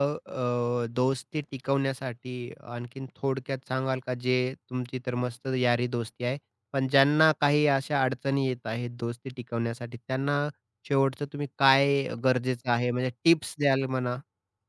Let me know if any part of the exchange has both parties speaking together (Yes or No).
No